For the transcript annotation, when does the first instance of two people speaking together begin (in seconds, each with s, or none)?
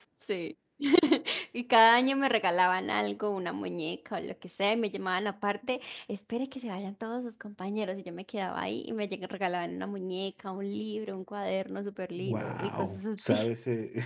12.2 s